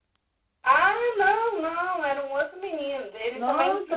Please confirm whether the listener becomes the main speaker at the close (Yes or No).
Yes